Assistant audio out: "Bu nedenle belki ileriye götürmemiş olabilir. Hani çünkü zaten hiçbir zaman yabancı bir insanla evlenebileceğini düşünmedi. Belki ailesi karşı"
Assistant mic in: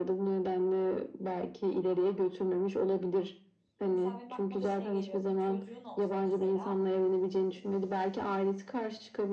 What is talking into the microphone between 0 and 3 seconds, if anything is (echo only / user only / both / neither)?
echo only